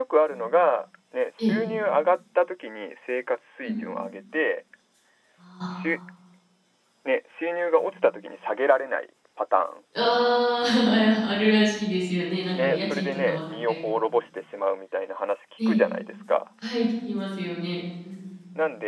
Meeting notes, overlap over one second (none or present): present